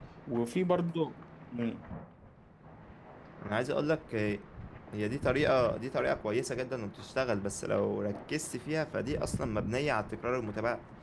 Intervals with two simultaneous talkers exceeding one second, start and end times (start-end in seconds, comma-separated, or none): none